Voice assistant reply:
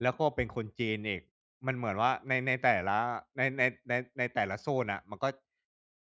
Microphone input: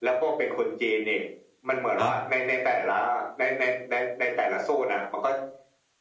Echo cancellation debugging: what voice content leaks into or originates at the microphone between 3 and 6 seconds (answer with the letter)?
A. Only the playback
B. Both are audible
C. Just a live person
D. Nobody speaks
A